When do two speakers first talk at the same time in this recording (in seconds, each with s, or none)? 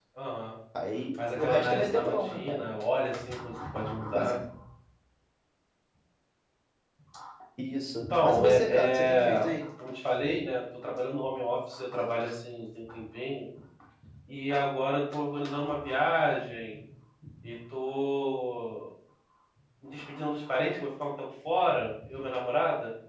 1.1 s